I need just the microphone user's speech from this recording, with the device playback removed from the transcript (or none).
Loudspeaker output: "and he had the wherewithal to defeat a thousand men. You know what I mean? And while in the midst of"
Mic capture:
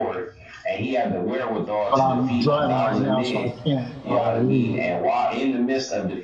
but I'm driving right now, so I can't uh, read.